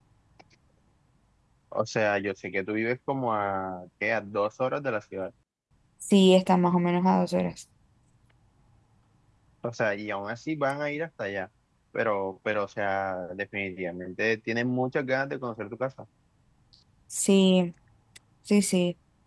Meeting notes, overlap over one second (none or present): none